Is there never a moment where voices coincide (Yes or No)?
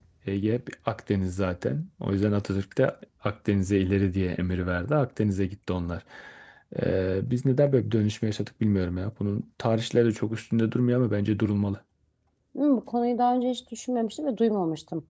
Yes